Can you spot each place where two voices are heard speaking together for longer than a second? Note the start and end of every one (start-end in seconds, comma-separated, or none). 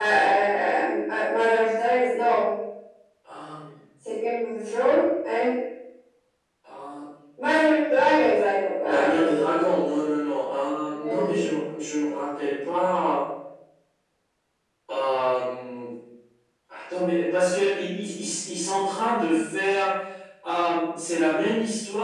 none